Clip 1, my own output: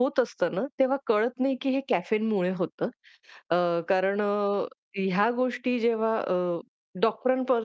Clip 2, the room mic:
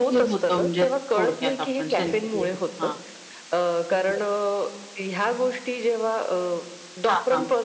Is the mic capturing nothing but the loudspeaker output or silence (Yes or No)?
No